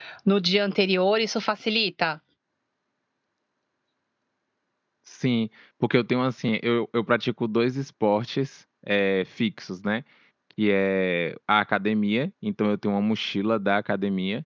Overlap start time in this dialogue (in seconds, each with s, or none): none